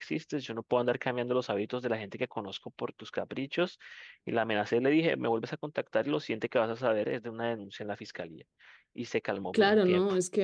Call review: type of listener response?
taking over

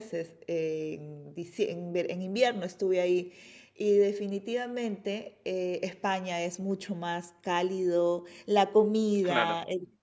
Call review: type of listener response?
listening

